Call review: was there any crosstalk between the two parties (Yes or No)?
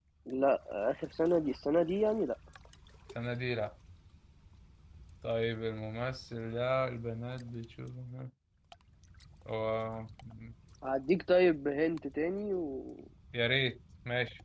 No